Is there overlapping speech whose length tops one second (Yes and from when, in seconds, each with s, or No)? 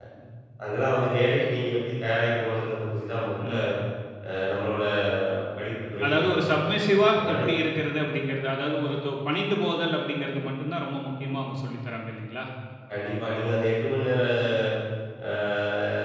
No